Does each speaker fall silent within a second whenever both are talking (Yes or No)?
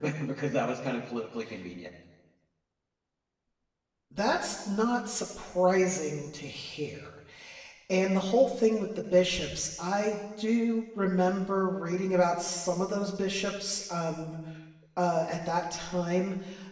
Yes